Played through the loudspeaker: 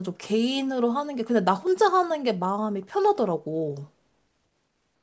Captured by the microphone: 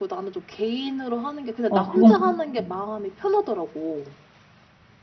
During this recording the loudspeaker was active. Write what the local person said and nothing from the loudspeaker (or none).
아, 그건, 그- 음,